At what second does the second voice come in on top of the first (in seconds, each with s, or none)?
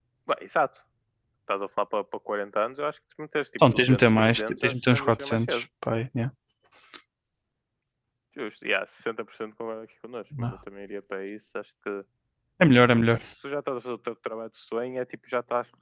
3.7 s